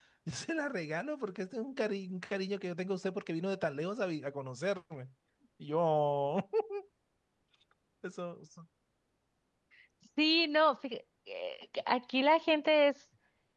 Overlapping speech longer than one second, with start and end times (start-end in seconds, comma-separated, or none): none